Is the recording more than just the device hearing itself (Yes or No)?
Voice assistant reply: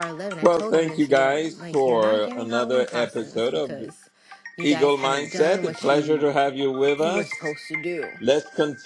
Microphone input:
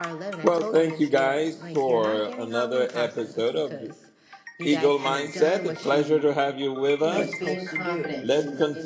Yes